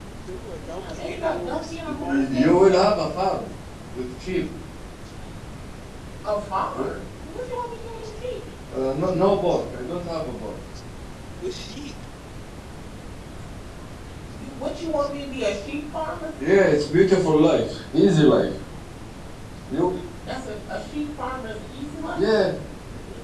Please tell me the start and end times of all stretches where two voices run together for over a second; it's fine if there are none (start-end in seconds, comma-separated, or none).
0.7-3.0